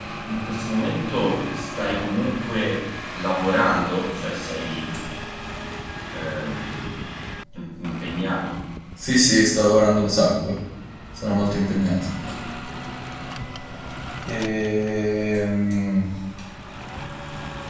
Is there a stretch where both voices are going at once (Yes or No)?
No